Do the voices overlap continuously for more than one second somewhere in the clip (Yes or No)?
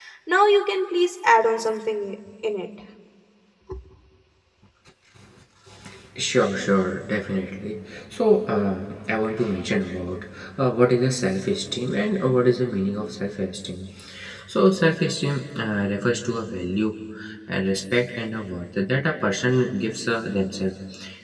No